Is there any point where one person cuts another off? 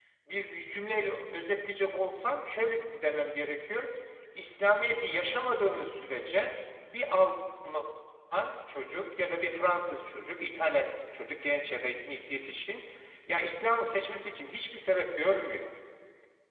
No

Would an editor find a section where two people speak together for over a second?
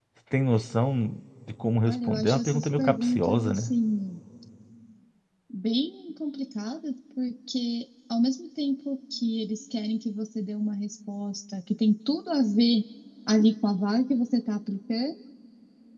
Yes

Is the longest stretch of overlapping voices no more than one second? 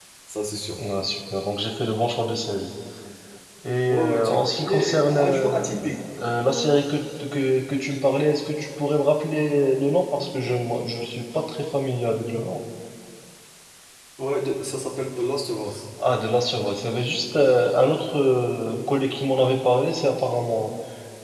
No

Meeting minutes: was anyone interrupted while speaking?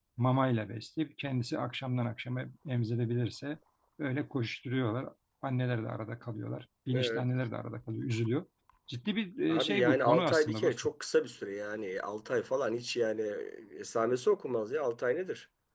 Yes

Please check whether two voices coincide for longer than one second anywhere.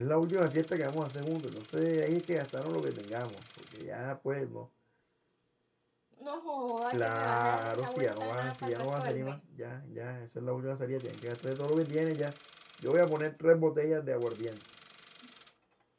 Yes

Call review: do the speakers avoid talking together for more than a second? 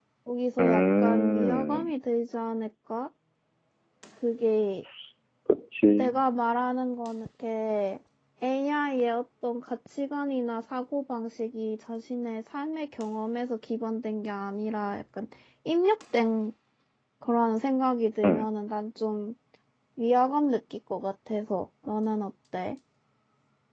No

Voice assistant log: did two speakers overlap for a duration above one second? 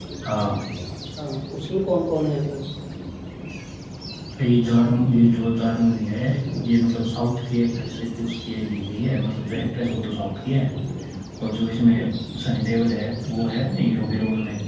No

